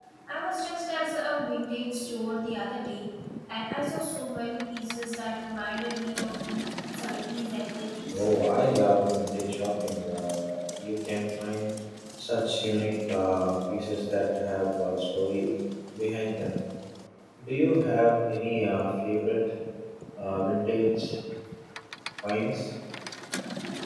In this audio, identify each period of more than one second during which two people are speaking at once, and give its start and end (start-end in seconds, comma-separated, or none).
none